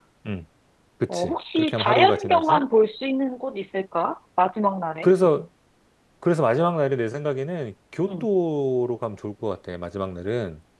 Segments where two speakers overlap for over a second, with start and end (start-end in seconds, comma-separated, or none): 1.1-2.6